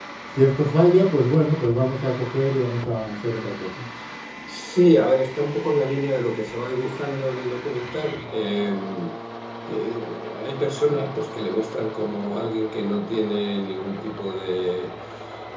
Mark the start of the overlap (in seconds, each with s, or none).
none